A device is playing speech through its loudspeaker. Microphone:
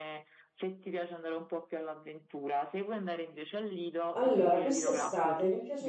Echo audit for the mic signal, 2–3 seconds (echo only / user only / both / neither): echo only